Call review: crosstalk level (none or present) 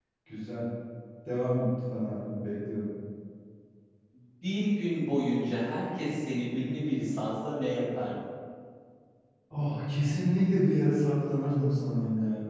none